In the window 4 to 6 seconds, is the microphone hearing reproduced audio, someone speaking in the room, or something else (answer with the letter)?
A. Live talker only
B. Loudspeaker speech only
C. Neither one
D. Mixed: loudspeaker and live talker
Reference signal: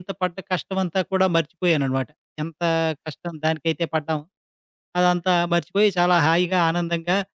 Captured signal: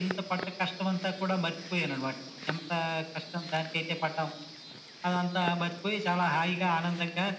B